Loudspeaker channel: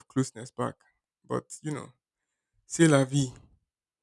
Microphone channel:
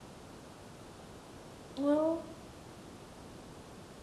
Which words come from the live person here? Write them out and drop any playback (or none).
well,